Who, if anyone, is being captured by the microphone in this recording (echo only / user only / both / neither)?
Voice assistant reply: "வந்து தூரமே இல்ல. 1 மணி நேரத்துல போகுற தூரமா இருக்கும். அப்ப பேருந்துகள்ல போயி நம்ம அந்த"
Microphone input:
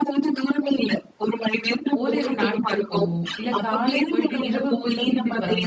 both